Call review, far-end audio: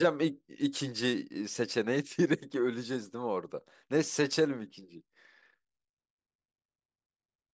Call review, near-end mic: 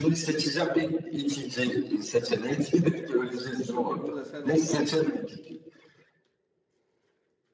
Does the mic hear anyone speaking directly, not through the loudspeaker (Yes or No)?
Yes